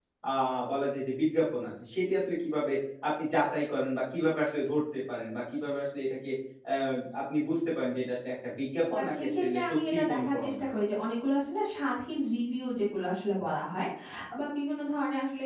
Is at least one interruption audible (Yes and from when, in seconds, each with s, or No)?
Yes, from 9.0 s